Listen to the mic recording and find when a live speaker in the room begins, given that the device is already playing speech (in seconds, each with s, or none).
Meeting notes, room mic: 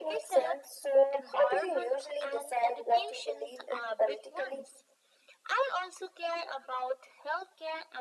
none